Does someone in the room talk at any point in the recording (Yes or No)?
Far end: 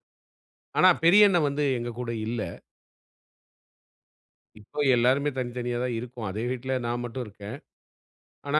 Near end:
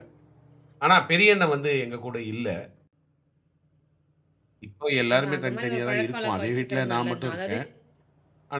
Yes